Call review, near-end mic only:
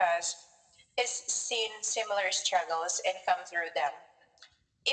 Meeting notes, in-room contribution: none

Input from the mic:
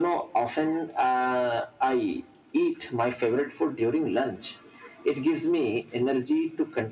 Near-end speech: none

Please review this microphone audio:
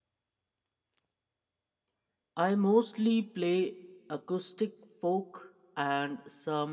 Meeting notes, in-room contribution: present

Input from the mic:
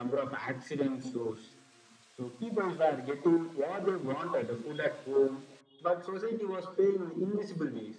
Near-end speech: none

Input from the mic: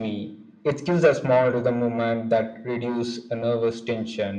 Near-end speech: none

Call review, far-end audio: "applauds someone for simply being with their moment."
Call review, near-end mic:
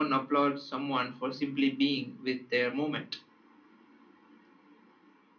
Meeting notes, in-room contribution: none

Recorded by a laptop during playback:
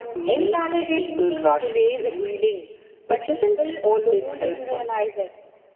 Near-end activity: none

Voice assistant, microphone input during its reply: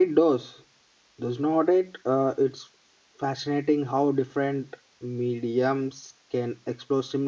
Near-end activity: present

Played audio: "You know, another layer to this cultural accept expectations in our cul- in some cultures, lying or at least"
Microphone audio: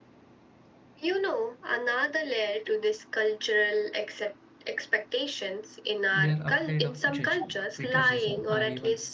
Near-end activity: present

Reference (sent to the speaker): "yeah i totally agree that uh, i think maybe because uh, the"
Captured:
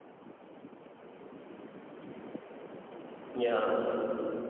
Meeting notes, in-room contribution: present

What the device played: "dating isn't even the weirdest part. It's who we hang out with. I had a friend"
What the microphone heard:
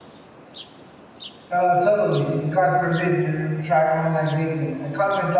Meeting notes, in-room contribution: present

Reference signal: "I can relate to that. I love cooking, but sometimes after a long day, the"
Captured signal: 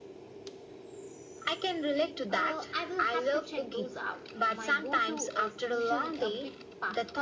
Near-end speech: present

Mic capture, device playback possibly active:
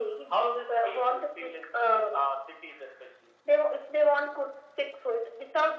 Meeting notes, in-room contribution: none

